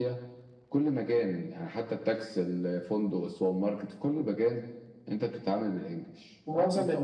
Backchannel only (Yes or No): No